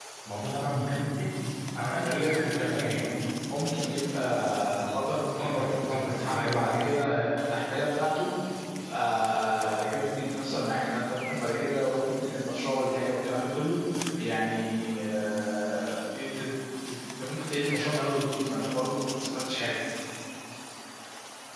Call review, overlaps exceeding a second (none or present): present